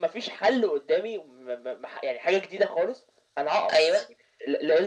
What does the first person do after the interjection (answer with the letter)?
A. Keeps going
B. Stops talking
A